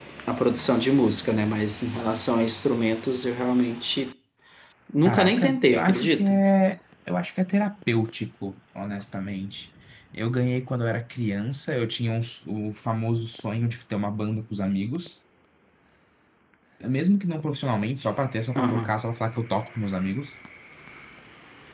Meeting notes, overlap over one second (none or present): present